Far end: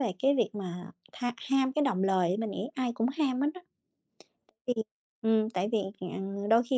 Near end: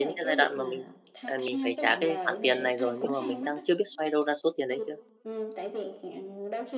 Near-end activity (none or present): present